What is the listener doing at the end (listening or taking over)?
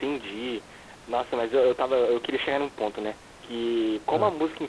listening